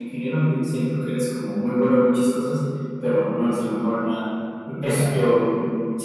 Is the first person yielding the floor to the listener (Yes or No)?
No